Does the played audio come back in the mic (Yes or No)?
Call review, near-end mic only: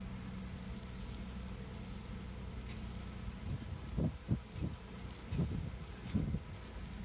No